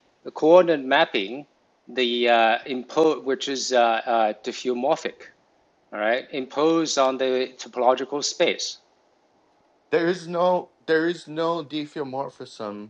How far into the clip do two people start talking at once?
none

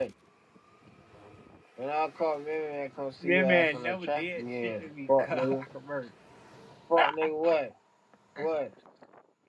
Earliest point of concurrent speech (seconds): 3 s

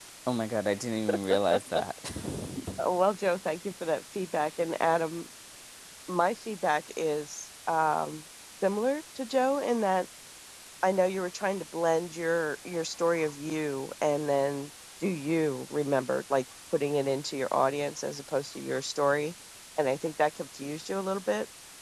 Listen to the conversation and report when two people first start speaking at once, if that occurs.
none

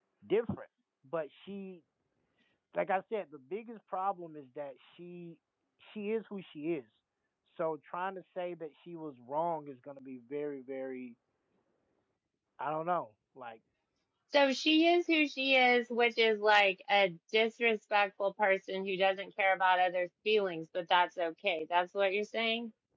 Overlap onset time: none

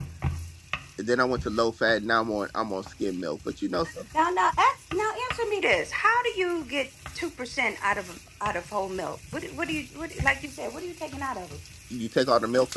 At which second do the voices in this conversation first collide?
none

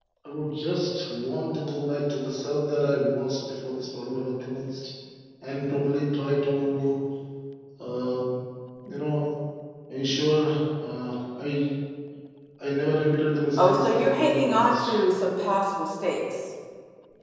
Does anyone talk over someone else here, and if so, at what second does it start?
14 s

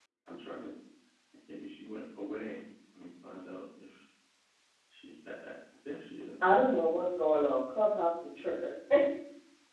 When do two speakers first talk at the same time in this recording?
none

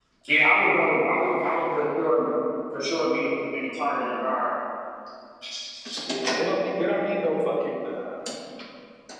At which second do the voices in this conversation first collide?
none

